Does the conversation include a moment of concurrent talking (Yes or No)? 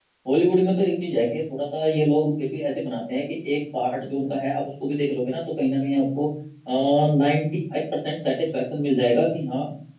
No